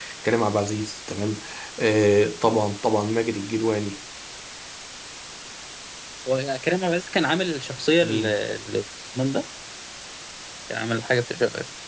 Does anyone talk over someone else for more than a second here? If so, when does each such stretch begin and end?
none

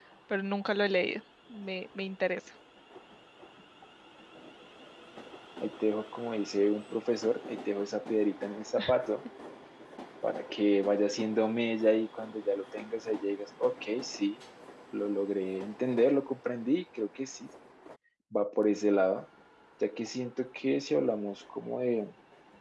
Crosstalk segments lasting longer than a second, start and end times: none

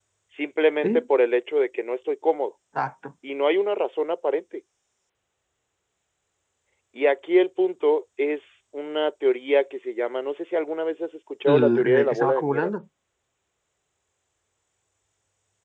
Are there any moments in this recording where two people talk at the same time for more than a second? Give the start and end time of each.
11.5-12.7

